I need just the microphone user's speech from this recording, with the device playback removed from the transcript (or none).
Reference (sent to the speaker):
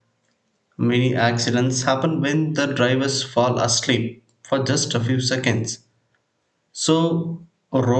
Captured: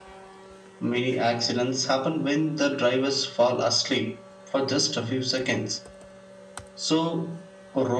none